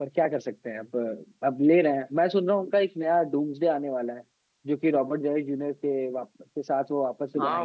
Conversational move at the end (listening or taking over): taking over